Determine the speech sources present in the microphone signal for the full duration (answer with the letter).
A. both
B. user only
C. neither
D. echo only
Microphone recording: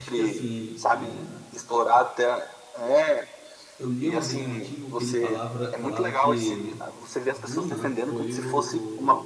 A